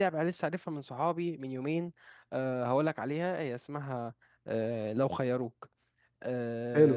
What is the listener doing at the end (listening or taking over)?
listening